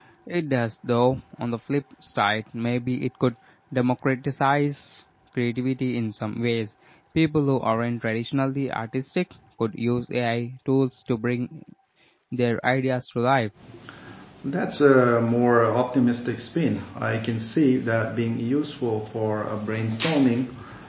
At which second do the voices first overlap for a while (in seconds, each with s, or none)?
none